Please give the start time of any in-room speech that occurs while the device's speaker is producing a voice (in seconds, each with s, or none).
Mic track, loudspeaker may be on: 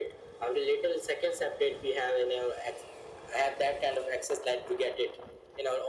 none